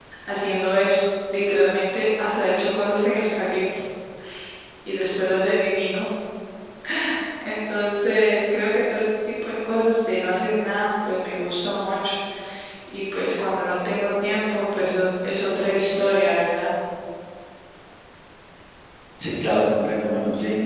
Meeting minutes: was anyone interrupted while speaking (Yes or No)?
No